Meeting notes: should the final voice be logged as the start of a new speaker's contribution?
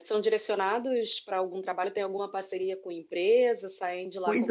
Yes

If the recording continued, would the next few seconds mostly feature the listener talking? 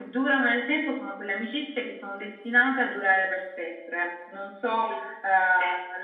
No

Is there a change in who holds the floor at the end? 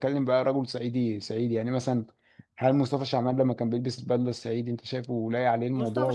Yes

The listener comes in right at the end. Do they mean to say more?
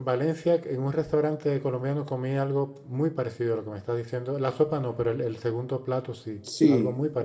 Yes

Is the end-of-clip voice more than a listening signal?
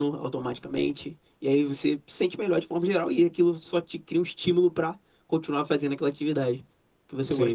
Yes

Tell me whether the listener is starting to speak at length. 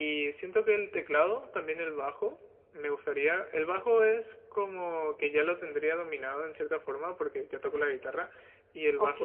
No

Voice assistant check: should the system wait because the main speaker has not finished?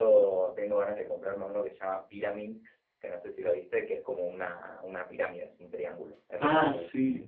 No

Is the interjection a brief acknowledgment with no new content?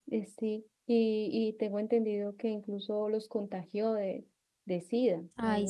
No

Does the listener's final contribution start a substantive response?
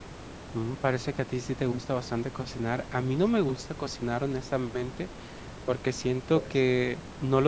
No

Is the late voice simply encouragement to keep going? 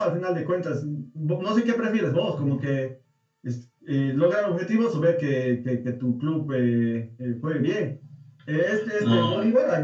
Yes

